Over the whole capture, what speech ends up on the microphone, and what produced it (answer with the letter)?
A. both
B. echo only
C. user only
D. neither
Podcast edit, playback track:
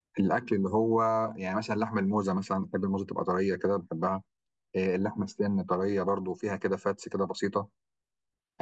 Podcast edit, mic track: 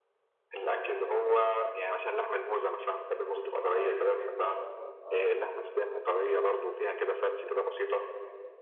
A